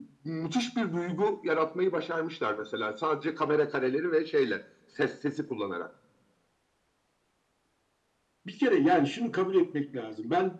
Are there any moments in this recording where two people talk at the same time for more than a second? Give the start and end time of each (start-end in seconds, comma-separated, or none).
none